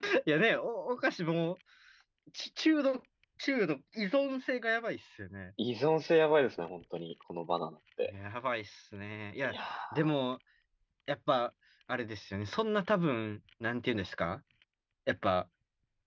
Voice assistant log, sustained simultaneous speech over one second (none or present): none